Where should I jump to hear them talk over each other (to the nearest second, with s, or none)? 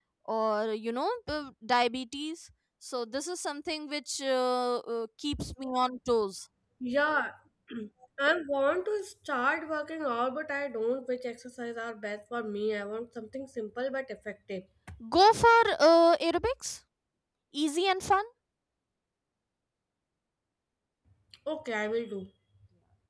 none